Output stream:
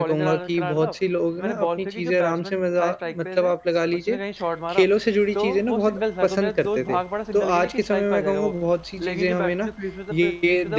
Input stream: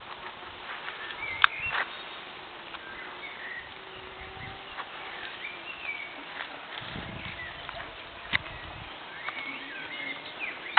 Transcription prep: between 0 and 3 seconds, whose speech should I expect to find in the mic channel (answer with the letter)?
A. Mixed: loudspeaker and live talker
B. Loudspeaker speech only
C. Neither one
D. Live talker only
C